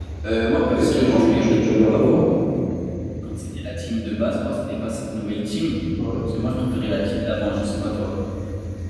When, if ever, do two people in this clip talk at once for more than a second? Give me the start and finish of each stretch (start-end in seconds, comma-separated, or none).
0.7-2.2